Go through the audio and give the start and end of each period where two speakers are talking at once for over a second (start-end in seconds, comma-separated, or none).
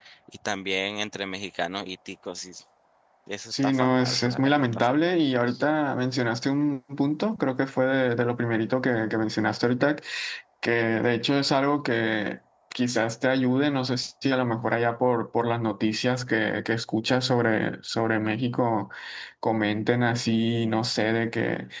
3.5-5.1